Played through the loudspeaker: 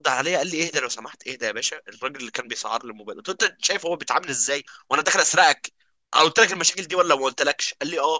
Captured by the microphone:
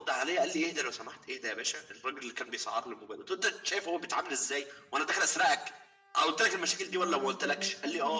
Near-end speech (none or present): present